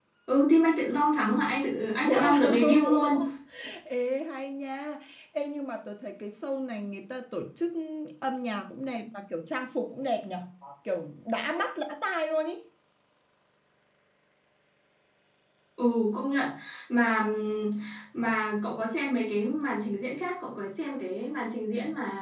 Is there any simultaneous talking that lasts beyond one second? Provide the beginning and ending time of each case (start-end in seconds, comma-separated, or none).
2.0-3.2